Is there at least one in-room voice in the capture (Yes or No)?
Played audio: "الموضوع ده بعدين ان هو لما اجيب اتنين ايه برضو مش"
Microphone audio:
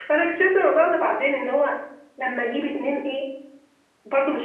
No